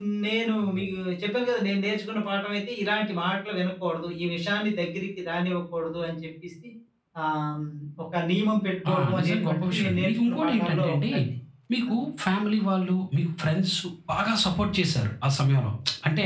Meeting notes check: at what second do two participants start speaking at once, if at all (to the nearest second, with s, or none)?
9 s